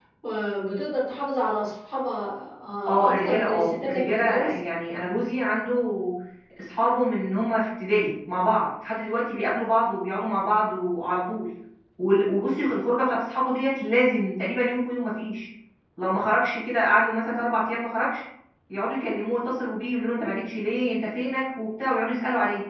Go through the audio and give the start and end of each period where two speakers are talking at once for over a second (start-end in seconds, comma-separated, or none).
2.9-4.6